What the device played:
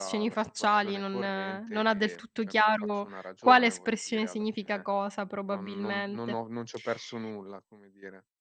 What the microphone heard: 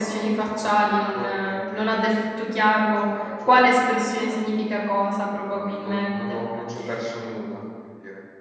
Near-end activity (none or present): none